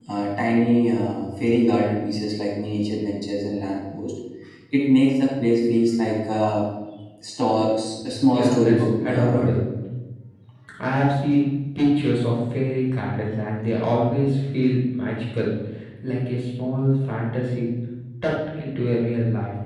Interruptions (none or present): present